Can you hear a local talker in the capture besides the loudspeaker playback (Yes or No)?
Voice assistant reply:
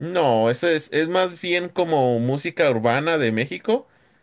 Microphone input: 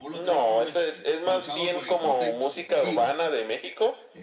Yes